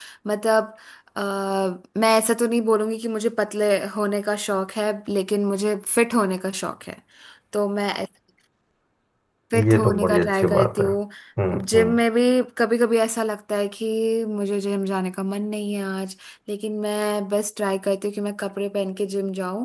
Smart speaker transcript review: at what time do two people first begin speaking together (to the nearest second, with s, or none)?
10 s